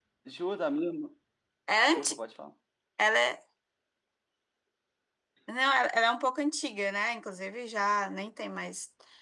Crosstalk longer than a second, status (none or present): none